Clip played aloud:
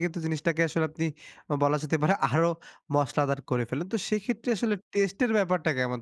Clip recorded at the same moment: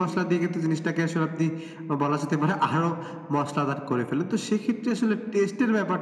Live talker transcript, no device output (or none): none